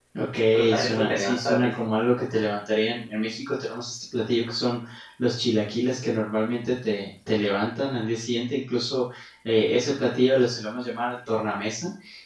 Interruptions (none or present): present